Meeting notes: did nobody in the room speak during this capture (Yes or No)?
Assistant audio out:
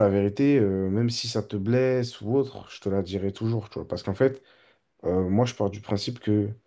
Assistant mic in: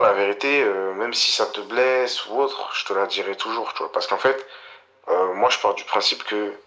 Yes